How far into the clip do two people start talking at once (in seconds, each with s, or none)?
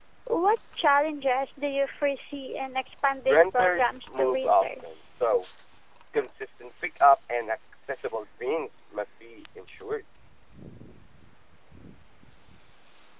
3.2 s